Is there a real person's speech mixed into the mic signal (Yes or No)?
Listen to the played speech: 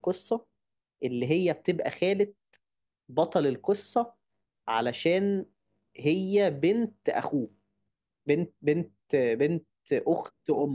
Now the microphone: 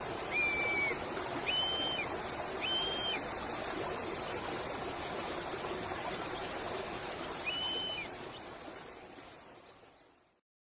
No